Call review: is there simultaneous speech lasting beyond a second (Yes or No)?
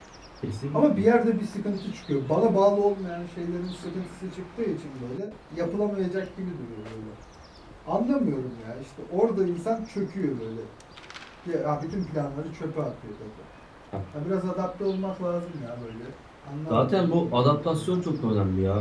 Yes